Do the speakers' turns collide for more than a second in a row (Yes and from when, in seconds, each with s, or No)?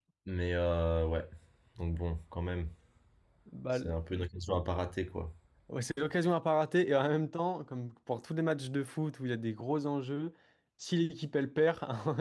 No